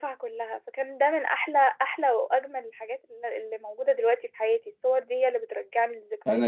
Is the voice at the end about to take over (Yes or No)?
Yes